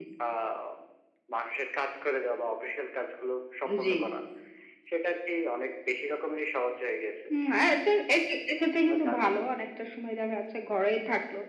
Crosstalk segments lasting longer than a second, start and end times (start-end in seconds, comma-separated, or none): none